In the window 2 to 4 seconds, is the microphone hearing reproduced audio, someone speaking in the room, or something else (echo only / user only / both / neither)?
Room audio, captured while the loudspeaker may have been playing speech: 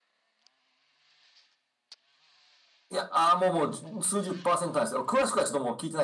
echo only